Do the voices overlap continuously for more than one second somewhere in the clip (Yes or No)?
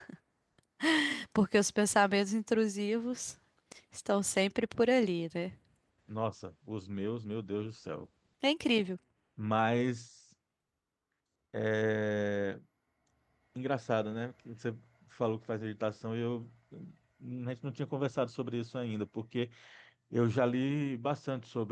No